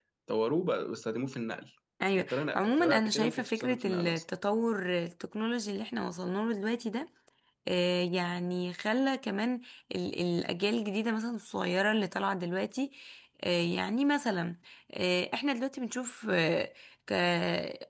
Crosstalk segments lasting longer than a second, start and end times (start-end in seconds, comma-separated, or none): 2.2-4.2